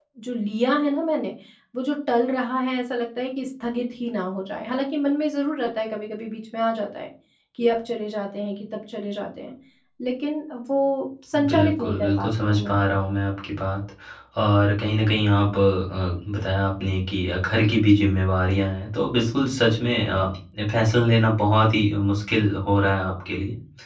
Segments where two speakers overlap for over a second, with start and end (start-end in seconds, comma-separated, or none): 11.5-12.7